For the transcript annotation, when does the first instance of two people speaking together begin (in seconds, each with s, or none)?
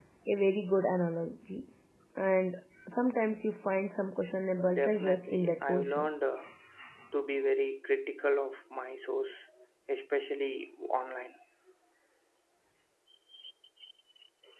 4.6 s